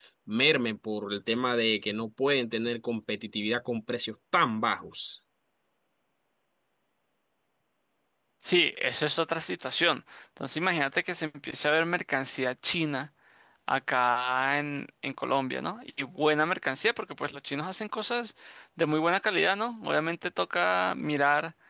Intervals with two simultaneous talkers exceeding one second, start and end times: none

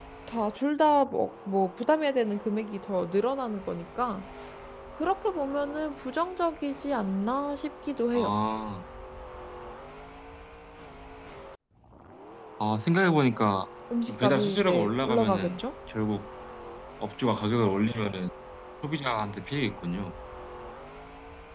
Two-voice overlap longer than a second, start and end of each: 14.1-15.6

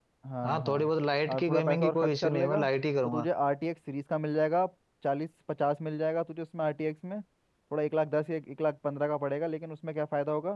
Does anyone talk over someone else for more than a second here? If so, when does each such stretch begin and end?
1.3-2.6

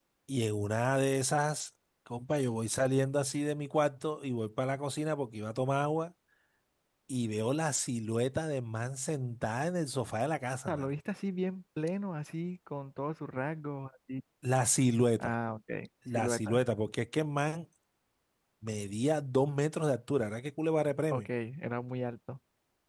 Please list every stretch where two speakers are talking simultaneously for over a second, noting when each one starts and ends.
none

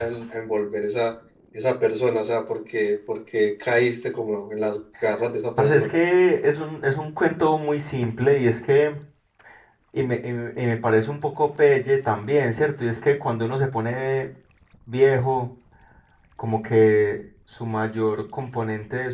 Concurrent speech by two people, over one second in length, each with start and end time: none

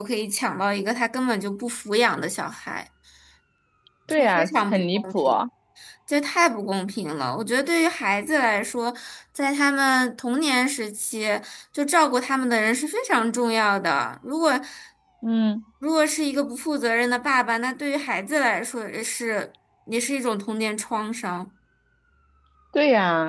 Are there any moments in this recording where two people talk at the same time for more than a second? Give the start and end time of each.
4.1-5.4

